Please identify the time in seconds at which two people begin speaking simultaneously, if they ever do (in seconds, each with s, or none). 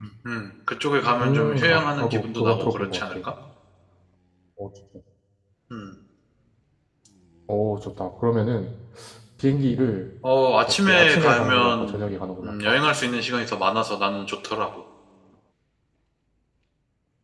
1.2 s